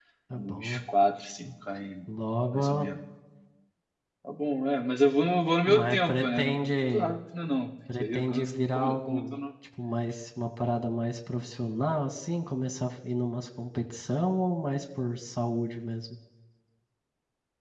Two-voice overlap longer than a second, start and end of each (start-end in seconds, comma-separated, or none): 5.7-7.1, 8.0-9.4